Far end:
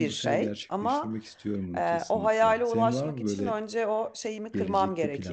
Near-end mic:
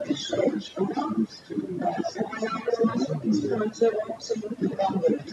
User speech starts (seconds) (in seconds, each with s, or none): 3.3 s